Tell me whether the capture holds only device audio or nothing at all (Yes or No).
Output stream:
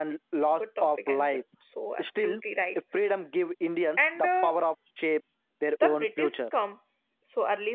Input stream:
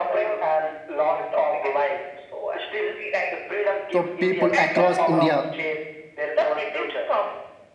No